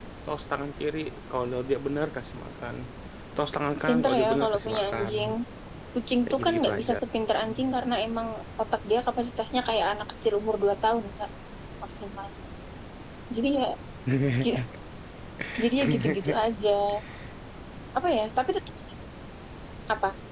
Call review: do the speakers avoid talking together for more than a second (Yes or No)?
No